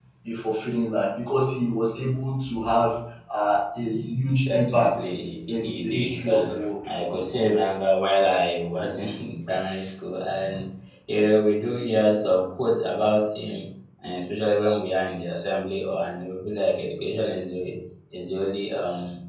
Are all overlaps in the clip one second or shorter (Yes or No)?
No